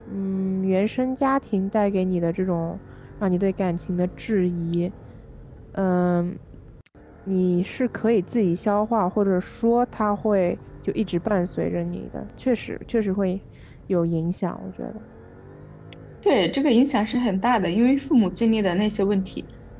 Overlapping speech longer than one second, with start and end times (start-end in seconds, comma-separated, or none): none